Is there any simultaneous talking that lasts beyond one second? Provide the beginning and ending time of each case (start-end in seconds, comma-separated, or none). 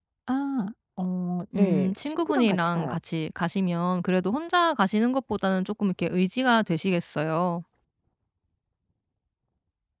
1.6-3.0